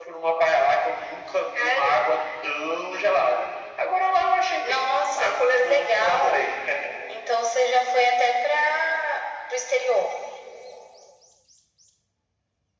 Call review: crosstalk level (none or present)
present